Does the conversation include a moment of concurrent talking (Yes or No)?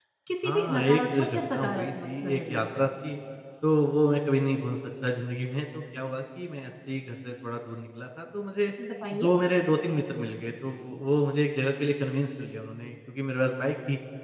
Yes